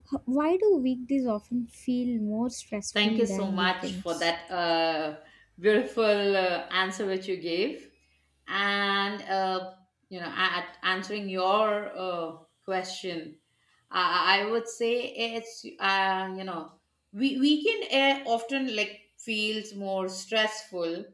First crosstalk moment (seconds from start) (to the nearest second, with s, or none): 3 s